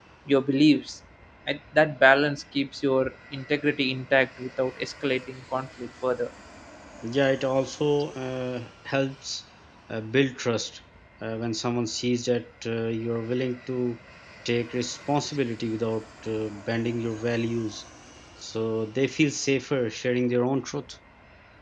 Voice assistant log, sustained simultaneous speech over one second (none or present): none